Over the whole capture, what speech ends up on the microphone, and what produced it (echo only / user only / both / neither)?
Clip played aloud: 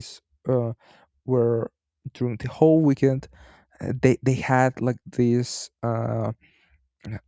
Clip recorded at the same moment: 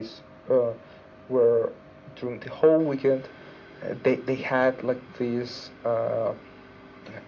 echo only